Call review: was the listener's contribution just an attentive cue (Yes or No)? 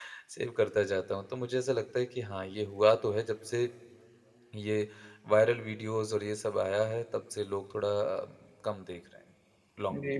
No